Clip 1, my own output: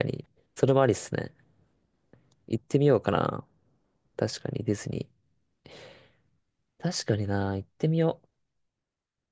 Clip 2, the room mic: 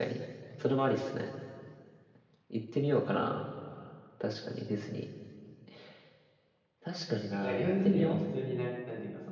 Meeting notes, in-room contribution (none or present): present